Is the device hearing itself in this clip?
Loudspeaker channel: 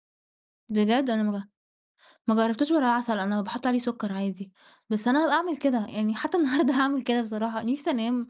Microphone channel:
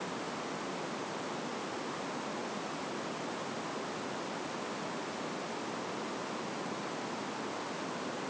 No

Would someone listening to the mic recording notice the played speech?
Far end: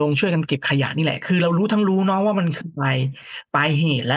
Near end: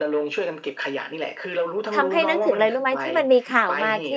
Yes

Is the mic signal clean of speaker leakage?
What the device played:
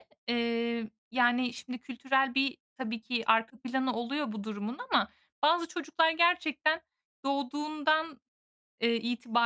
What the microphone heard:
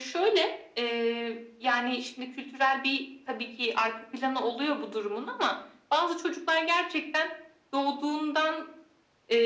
No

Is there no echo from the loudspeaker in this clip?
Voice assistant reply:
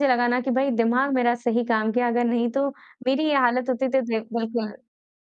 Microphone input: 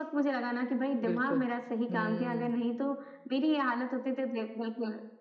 No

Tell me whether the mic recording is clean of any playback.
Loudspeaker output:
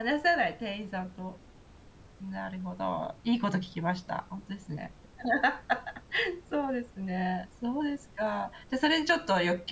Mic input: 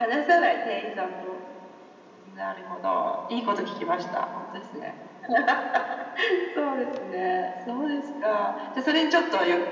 No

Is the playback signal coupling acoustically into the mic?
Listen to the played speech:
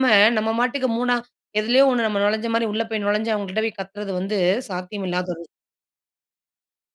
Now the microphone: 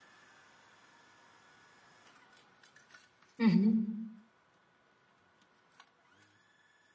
No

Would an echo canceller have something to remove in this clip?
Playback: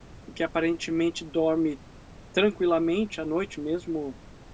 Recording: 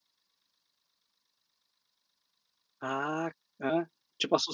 No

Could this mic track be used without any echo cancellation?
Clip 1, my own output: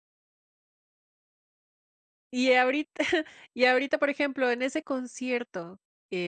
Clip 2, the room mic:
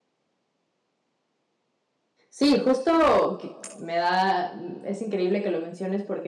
Yes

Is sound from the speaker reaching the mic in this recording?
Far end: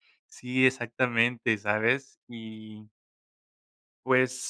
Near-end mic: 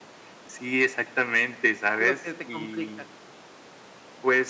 Yes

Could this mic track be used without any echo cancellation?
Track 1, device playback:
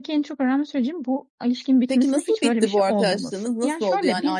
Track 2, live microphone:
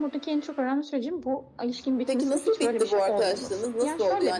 No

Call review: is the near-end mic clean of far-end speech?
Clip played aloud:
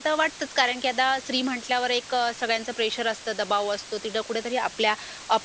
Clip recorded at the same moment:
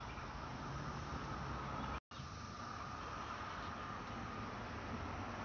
Yes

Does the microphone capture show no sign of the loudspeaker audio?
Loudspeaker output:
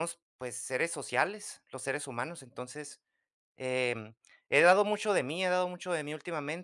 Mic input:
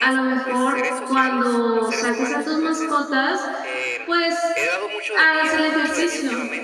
No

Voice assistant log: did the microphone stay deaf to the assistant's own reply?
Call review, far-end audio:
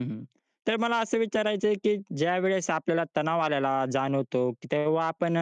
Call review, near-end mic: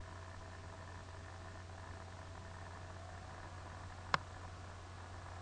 Yes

